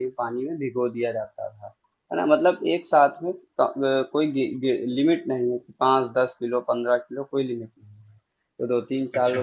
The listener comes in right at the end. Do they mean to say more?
No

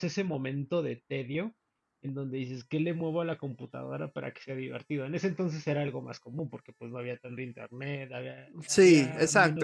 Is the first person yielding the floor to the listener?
Yes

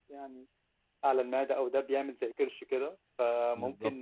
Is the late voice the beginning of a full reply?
No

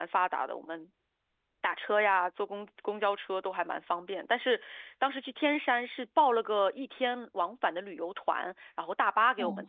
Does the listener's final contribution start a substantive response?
Yes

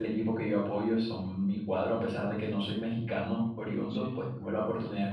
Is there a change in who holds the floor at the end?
No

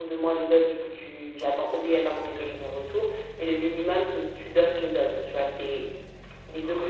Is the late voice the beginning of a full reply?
Yes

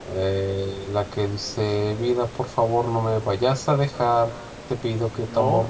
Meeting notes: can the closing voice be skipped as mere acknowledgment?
Yes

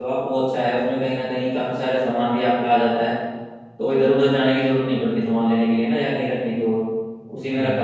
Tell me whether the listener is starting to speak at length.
Yes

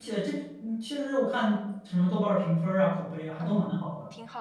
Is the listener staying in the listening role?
No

